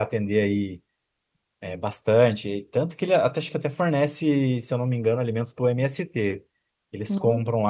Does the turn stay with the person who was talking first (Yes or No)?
Yes